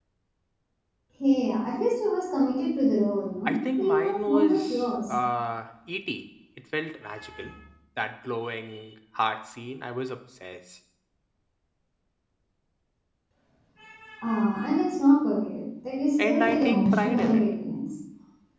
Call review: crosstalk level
present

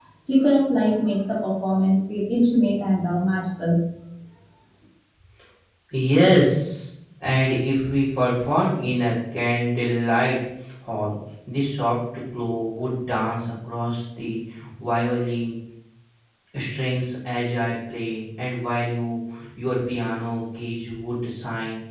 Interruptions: none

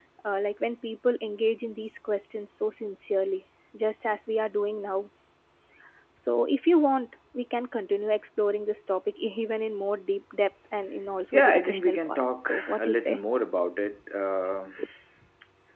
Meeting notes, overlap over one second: present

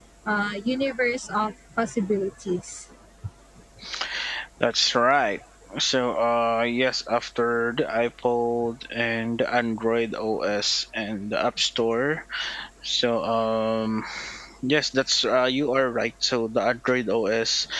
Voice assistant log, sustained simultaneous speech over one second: none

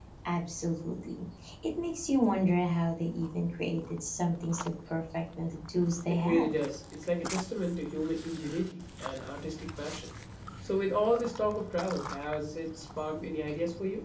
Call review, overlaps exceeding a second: none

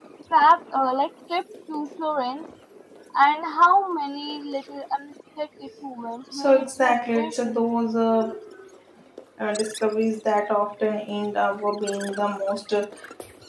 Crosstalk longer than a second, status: present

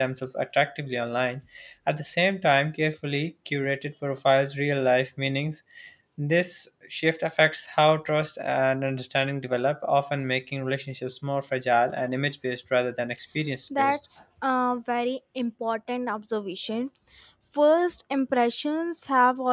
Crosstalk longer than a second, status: none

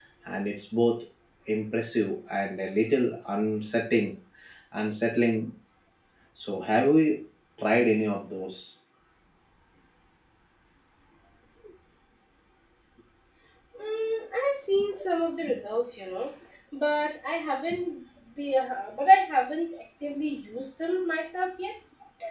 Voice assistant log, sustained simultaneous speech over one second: none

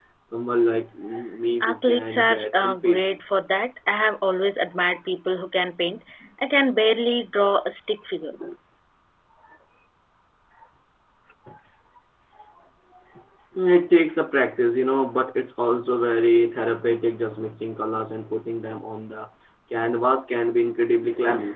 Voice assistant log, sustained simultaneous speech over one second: present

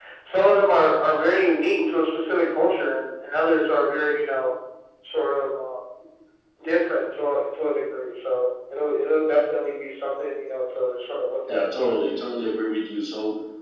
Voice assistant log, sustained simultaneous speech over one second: none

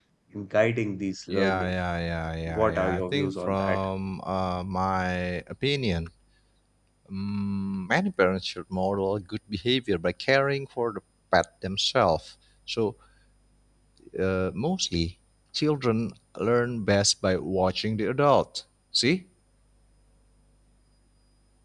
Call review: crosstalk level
present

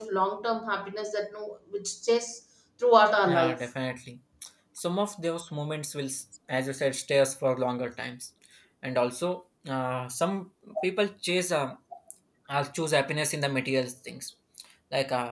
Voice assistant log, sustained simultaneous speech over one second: none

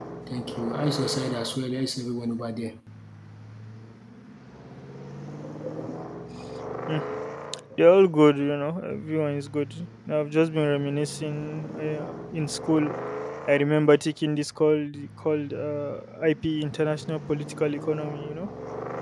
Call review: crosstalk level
none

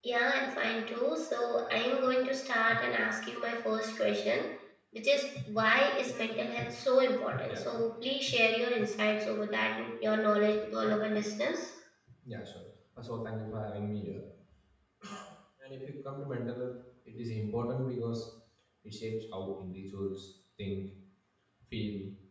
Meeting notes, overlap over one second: none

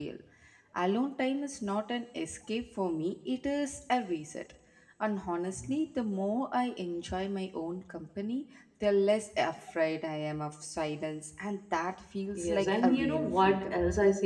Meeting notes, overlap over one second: present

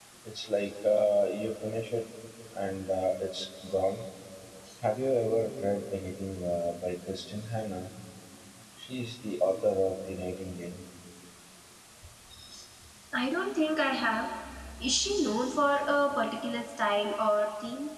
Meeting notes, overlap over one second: none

